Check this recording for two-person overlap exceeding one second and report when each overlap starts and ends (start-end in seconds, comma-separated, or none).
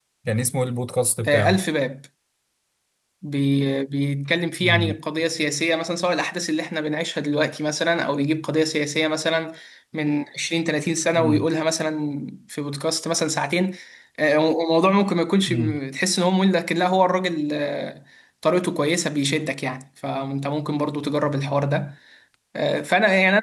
none